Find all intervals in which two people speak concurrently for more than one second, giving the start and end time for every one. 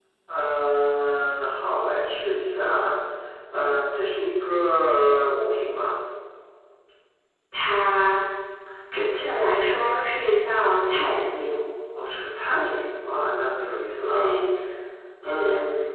none

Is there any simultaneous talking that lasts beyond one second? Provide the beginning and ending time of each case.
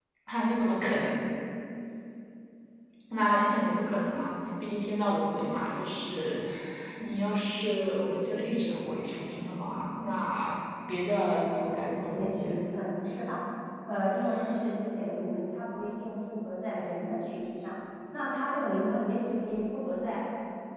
11.5-12.8

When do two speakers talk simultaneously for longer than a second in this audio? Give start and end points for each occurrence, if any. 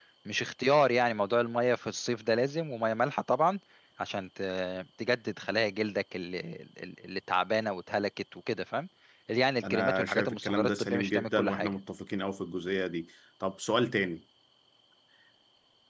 9.7-11.7

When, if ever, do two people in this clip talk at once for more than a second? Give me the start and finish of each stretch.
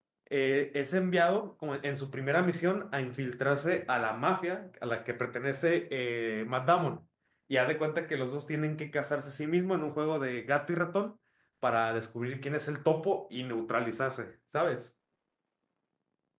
none

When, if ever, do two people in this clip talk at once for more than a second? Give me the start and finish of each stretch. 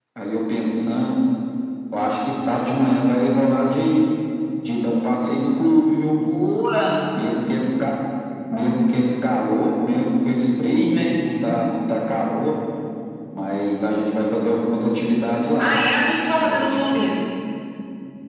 none

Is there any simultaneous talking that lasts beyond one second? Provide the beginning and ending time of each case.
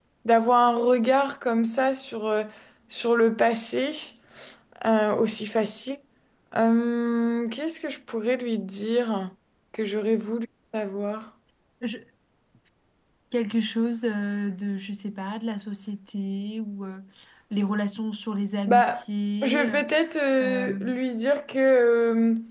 none

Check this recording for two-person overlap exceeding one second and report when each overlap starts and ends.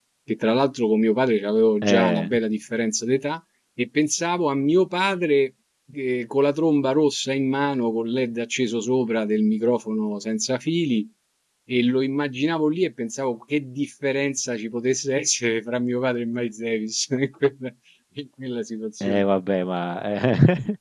none

